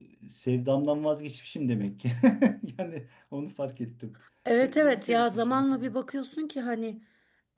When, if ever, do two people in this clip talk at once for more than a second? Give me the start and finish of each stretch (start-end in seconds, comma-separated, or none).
4.6-5.8